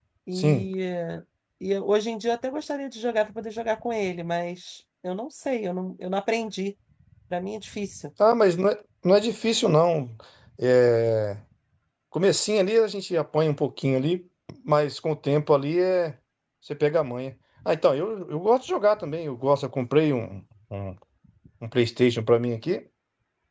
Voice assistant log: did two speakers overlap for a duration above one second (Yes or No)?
No